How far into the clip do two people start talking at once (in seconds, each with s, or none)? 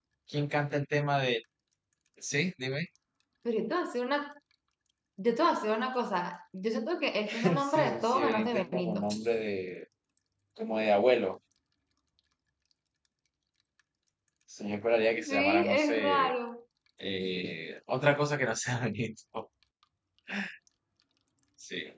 7.3 s